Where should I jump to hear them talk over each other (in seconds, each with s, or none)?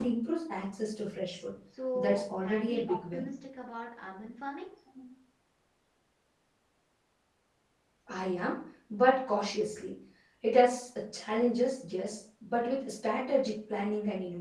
2.0 s